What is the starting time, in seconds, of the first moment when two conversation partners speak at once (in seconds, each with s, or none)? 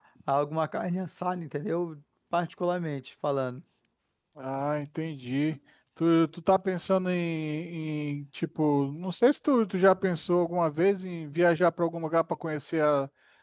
none